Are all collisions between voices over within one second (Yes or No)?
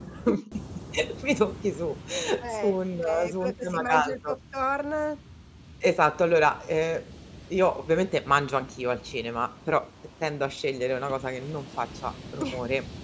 No